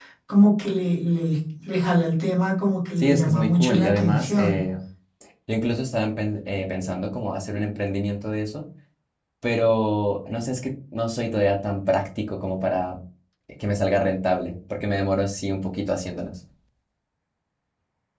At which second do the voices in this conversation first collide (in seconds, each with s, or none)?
3.0 s